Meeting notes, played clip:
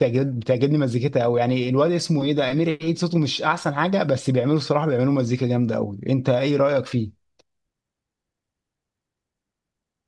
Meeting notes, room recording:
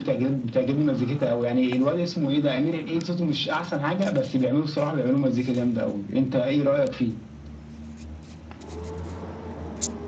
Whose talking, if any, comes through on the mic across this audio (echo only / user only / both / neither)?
echo only